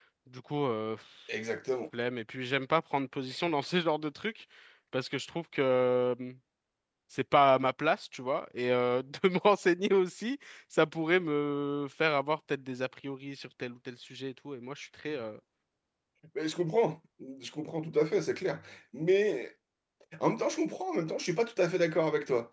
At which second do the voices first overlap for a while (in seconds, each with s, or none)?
none